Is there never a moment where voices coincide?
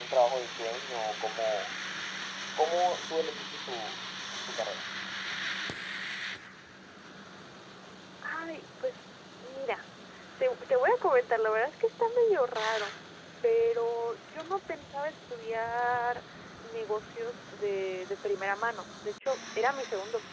Yes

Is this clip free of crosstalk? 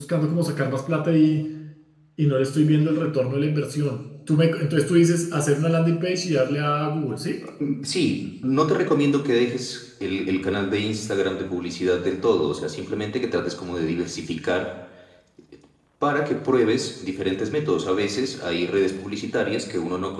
Yes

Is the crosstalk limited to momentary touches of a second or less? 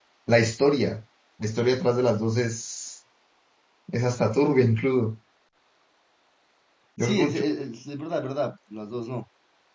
Yes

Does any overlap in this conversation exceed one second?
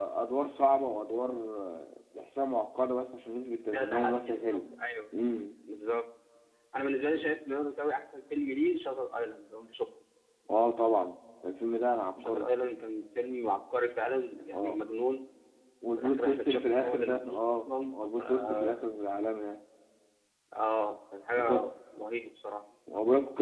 Yes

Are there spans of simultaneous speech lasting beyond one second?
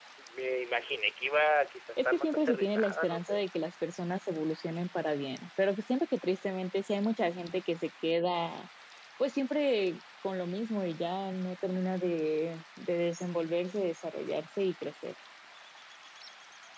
Yes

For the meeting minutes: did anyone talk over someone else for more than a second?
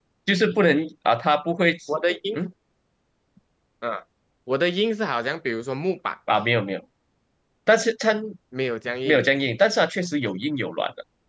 No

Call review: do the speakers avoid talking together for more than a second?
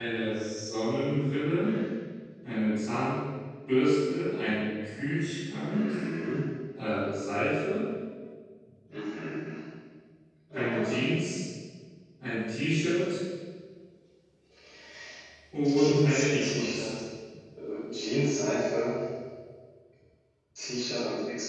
No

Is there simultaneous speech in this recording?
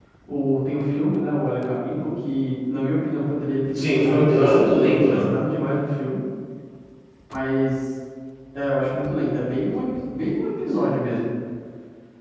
Yes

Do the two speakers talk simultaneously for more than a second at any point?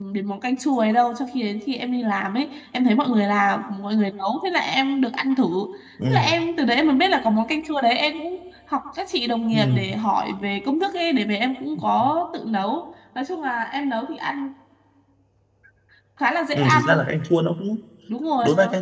No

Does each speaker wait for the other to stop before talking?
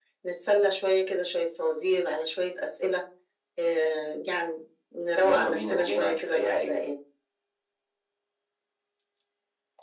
No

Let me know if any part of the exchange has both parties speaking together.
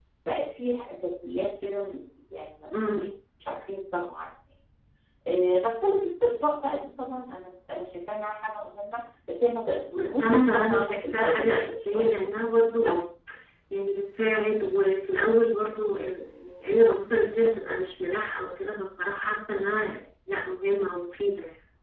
Yes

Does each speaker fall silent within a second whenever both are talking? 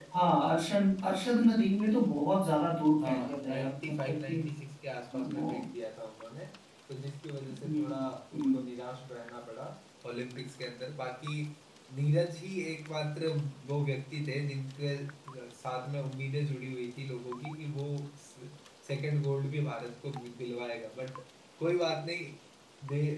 No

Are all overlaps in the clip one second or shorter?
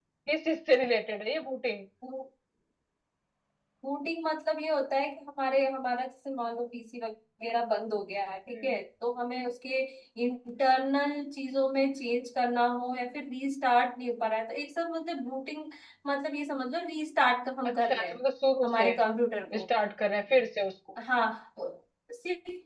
Yes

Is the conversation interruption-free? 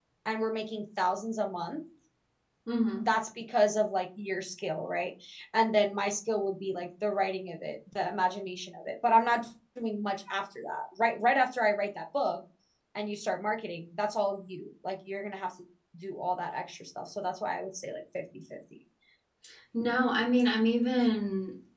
Yes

